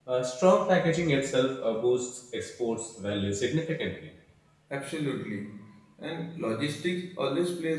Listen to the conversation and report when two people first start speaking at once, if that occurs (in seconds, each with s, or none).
none